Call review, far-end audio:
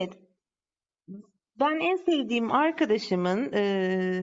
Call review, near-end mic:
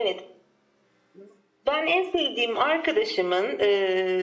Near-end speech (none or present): none